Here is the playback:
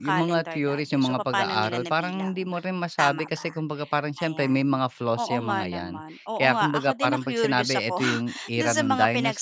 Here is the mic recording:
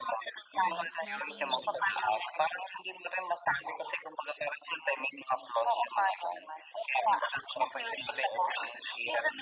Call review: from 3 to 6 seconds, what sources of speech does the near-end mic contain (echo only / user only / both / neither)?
echo only